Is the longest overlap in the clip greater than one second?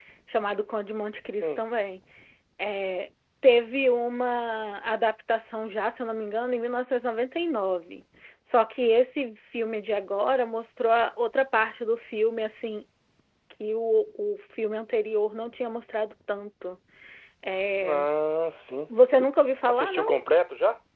No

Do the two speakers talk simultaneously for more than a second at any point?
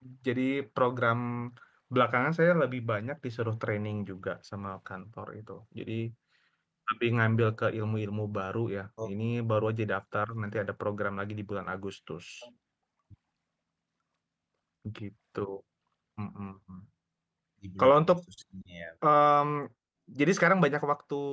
No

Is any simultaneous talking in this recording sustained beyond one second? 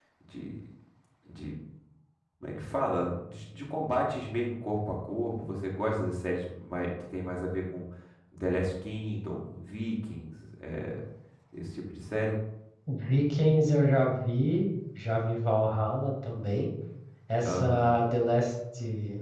No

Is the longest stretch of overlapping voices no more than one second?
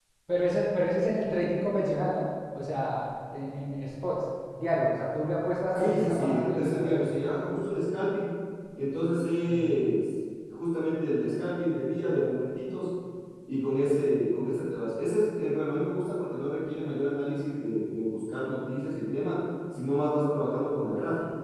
No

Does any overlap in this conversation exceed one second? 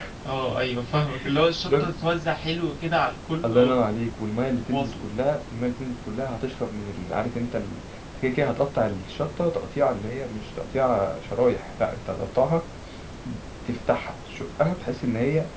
No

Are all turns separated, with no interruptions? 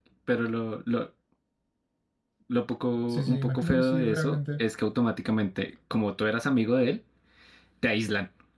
No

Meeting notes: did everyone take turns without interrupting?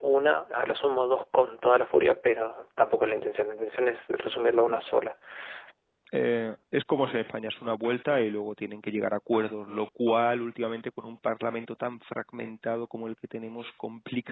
Yes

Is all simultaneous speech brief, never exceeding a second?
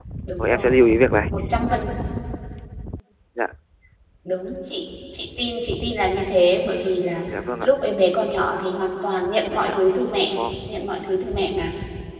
Yes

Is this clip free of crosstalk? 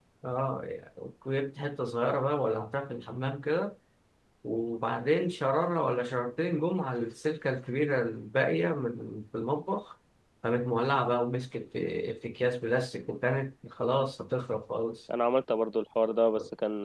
Yes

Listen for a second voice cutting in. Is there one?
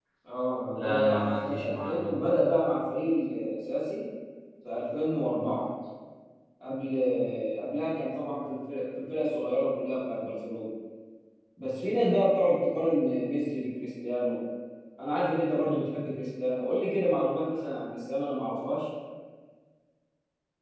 Yes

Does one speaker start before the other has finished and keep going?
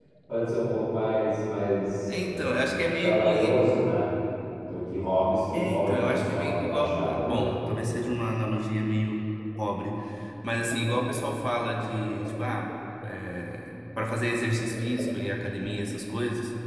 Yes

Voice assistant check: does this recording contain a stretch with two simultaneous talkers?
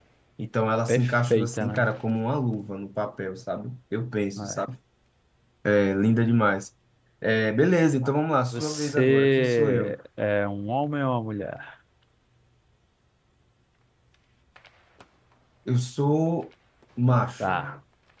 Yes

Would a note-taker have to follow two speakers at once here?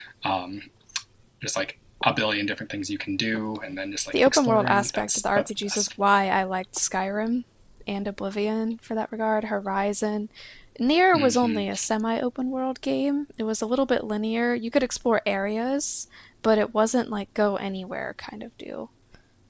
Yes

